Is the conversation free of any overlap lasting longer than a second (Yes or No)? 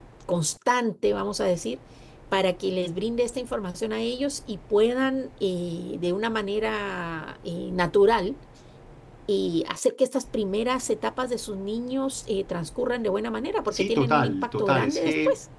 No